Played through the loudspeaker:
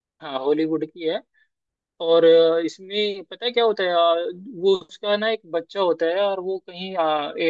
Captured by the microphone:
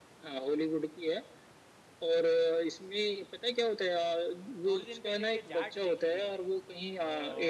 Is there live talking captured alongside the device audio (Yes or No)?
Yes